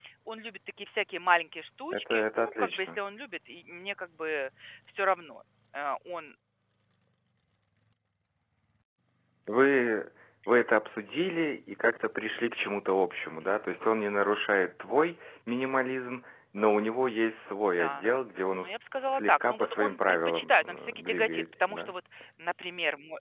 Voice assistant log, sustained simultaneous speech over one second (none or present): present